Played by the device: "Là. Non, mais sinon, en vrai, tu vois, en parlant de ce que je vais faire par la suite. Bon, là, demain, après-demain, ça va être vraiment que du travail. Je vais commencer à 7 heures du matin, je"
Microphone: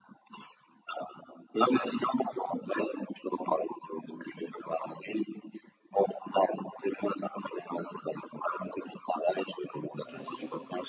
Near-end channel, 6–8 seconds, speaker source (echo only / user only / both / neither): echo only